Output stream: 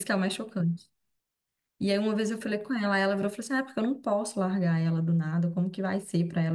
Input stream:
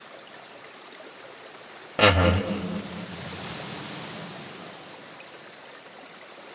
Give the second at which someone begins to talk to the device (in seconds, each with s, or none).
2.0 s